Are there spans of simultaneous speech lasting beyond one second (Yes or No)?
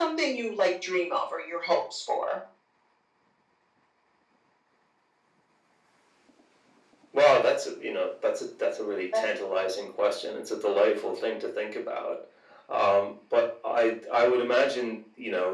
No